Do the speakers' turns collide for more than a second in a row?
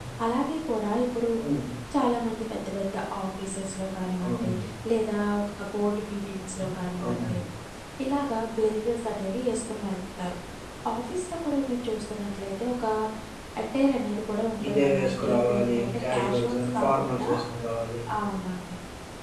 Yes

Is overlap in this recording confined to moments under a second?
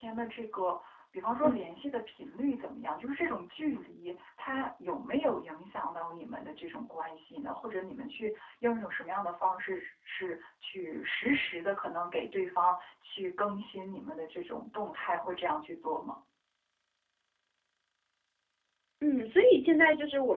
Yes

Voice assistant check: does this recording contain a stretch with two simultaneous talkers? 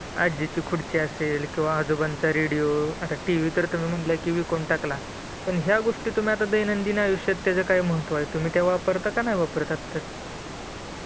No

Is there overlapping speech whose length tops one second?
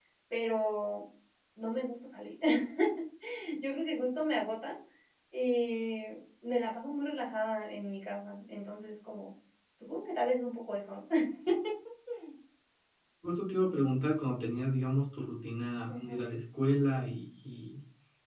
No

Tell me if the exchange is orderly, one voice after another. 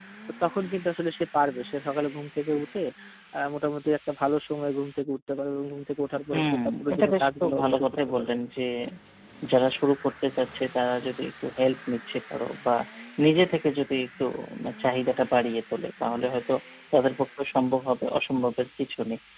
No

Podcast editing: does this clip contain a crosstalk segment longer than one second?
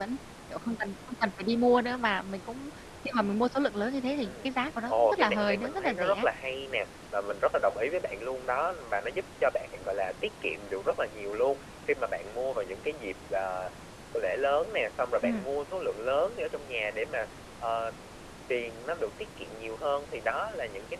Yes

